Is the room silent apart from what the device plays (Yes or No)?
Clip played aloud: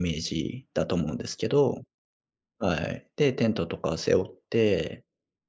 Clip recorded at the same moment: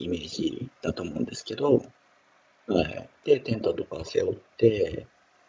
Yes